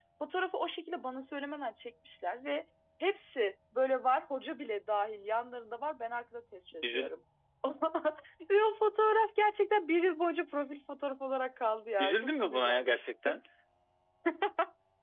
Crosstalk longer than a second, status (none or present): present